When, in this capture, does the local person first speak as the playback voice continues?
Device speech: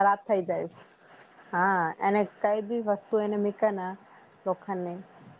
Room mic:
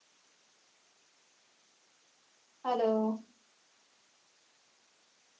2.6 s

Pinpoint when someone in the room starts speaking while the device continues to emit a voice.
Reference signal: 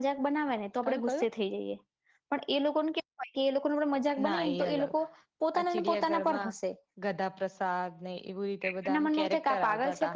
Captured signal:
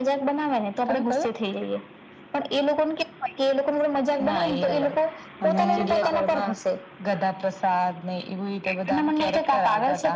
5.4 s

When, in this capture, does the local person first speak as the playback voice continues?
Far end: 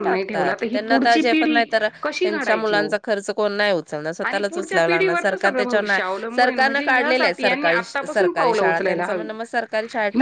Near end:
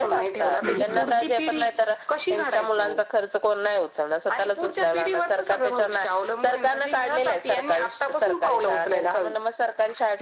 0.6 s

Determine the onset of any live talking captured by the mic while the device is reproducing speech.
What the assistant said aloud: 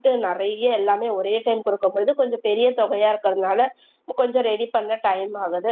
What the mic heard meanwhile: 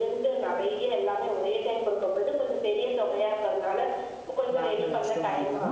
4.6 s

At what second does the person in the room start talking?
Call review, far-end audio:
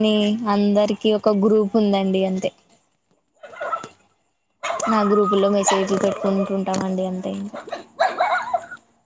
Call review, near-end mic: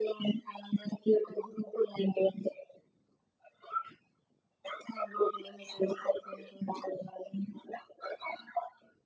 none

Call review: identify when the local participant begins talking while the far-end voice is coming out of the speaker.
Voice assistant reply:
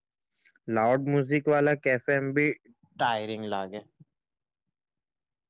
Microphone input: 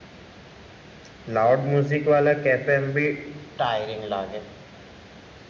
none

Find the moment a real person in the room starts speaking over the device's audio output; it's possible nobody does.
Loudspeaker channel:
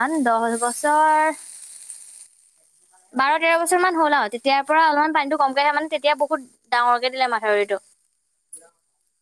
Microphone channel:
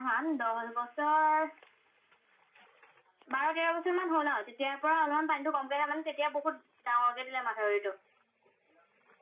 none

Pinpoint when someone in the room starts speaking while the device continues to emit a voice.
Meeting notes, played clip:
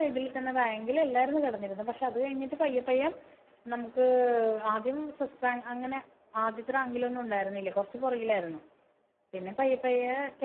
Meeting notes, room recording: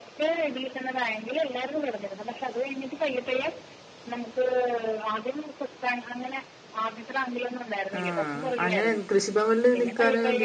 8.0 s

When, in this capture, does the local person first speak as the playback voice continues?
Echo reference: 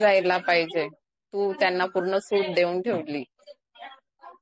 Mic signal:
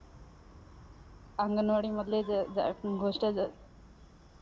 1.4 s

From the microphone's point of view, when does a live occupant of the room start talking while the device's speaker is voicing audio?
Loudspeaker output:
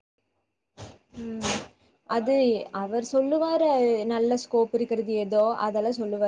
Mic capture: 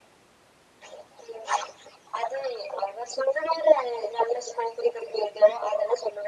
none

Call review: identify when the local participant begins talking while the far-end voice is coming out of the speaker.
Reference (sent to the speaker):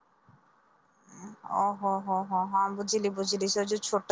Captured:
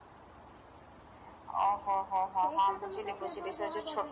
2.4 s

